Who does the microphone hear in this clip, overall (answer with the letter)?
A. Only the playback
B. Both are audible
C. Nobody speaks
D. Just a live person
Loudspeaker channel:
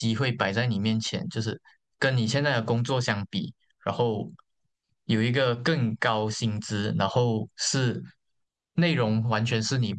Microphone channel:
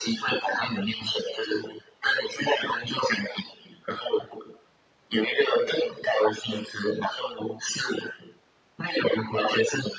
A